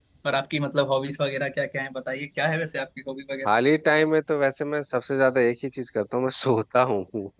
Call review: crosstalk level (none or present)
none